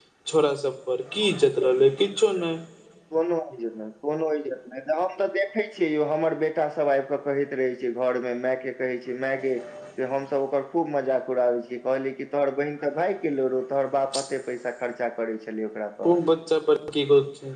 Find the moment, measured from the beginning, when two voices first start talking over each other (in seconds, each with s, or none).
none